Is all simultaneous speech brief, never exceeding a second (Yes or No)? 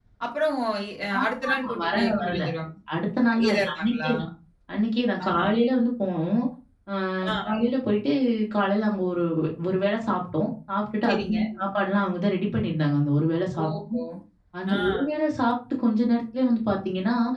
No